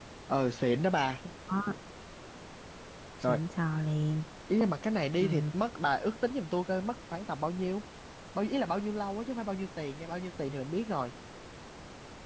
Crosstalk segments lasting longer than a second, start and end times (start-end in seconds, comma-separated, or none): none